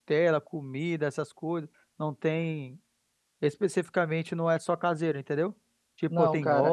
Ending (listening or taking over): taking over